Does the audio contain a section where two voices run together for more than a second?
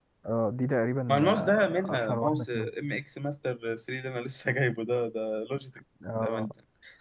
Yes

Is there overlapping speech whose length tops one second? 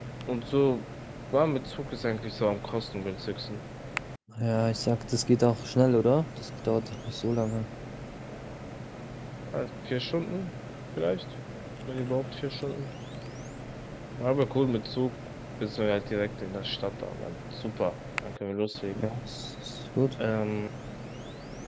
No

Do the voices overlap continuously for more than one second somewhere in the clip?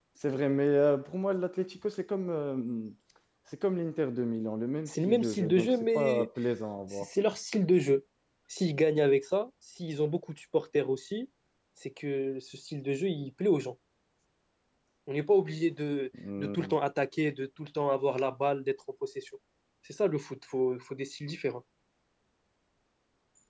Yes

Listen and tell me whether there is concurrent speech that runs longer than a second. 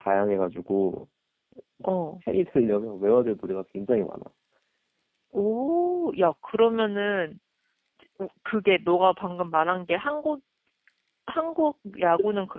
No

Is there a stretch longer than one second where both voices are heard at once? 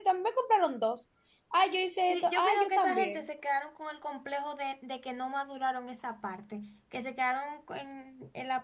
Yes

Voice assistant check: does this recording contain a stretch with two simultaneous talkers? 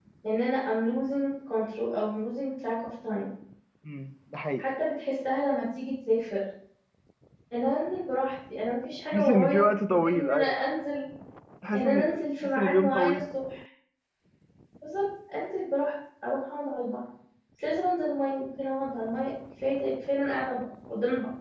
Yes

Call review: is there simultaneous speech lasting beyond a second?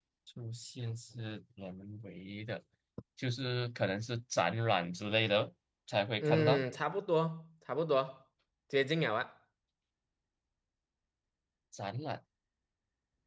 No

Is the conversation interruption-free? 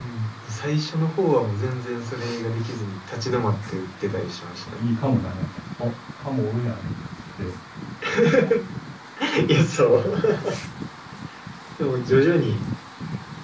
Yes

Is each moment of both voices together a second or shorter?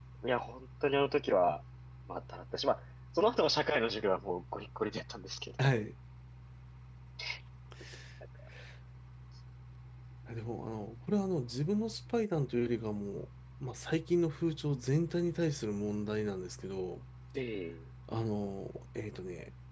Yes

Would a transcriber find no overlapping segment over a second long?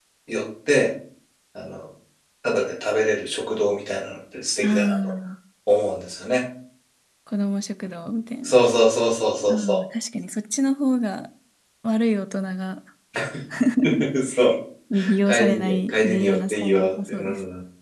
No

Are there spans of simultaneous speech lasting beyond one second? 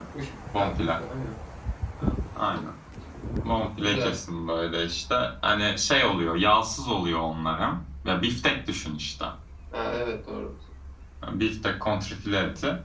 No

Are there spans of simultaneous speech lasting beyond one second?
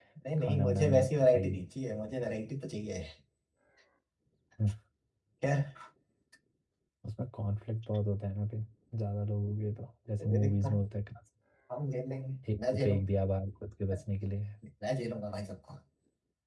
Yes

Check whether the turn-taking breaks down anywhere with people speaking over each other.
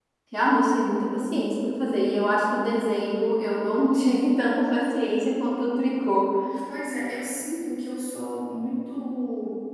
No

